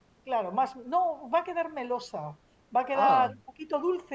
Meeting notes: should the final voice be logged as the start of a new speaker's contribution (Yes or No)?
No